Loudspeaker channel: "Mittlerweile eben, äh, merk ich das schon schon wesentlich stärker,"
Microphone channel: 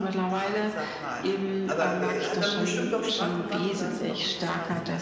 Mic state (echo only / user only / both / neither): both